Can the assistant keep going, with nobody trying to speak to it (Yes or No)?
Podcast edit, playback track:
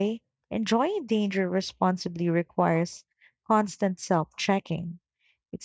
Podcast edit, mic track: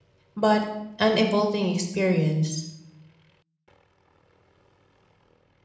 No